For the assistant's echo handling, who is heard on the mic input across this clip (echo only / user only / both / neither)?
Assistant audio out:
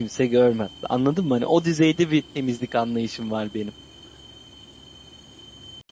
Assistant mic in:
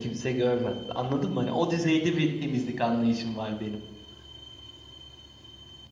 echo only